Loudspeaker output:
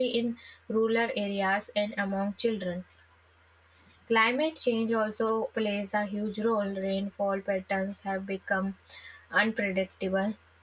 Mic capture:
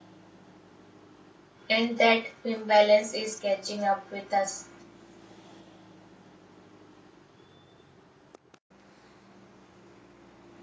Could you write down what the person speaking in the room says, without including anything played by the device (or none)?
and that imbalance is catching up with us.